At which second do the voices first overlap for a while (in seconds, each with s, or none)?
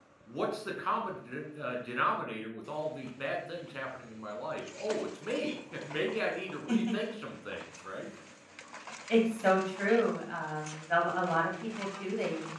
none